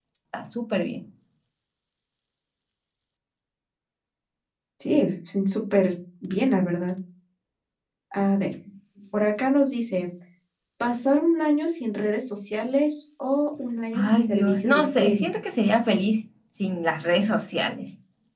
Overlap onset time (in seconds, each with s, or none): 13.9 s